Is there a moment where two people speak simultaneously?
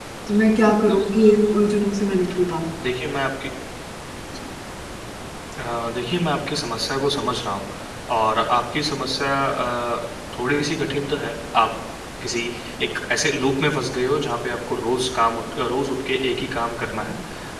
No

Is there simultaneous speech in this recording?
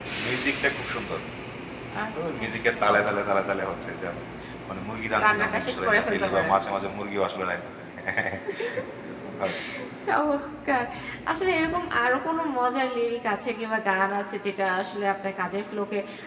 Yes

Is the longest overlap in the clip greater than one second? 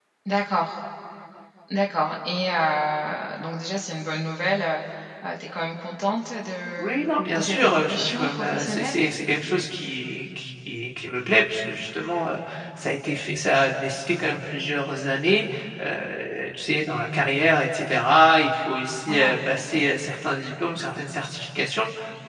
Yes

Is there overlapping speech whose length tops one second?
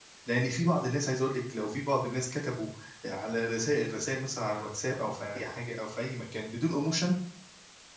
No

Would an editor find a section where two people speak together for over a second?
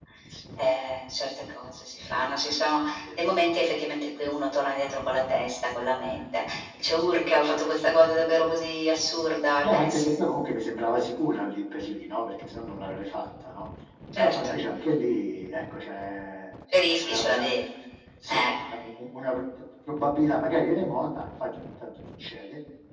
No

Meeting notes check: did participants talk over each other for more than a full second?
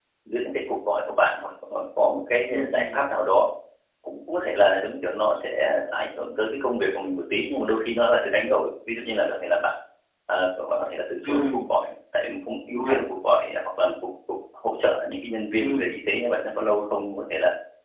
No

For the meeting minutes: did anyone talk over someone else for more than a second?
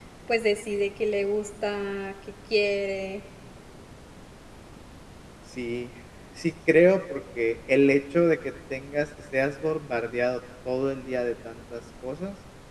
No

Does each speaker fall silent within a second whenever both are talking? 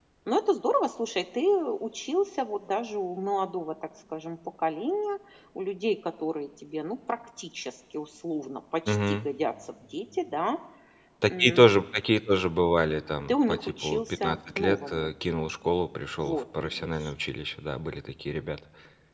No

